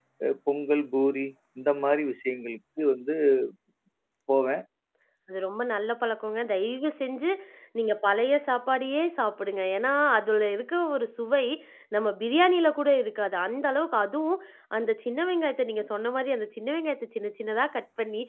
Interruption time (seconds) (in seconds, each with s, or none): none